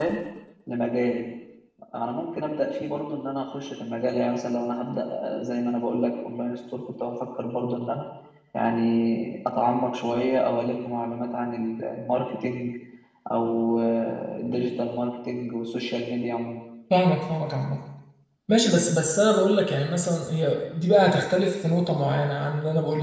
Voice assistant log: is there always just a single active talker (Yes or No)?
Yes